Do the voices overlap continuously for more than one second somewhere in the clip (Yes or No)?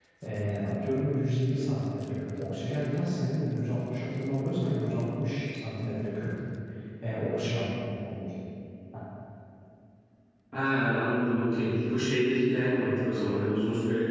No